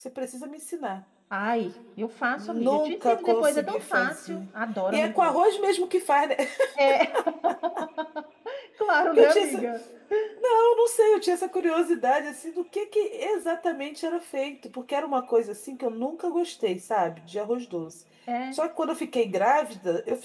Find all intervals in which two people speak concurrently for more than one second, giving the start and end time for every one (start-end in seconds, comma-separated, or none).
2.4-4.4